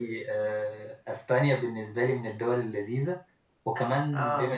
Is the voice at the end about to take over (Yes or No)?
No